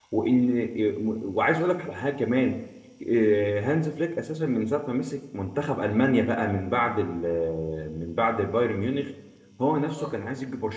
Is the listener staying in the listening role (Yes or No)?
Yes